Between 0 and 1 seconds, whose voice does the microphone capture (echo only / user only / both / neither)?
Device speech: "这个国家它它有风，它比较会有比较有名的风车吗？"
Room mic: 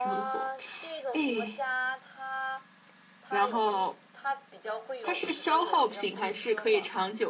both